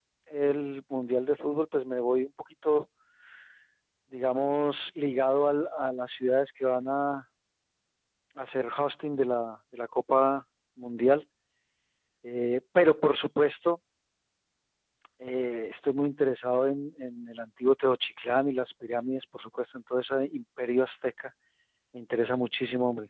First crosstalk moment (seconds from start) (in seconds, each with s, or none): none